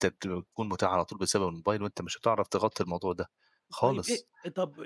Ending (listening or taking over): taking over